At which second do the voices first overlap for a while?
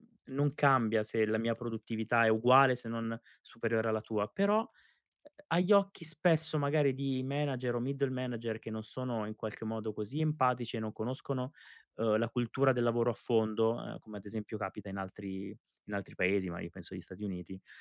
none

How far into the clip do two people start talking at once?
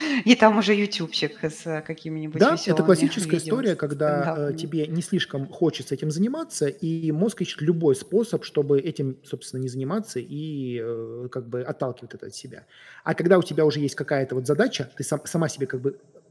2.3 s

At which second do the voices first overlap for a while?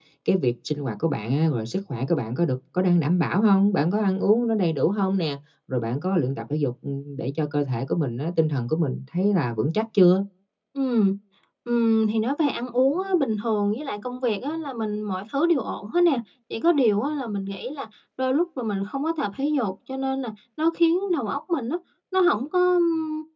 none

